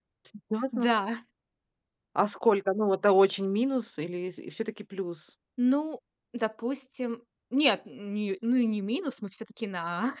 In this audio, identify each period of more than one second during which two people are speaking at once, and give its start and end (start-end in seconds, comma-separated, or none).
none